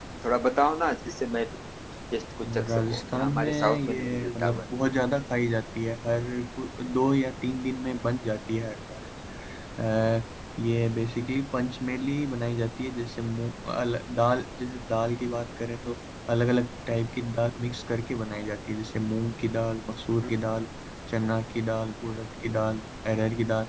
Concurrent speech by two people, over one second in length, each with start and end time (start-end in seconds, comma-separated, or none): 2.5-4.6